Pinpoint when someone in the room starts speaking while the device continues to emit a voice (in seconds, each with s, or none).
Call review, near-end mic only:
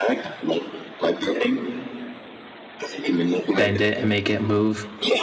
3.6 s